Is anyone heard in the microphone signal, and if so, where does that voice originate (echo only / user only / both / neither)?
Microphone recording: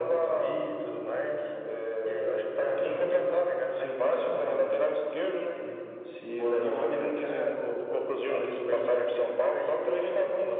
echo only